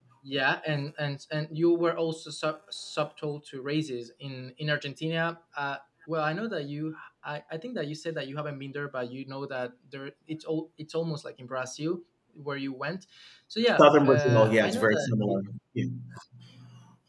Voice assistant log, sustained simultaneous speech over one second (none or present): present